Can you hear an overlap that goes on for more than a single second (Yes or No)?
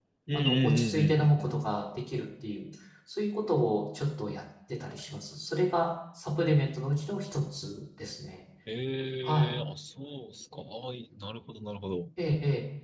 Yes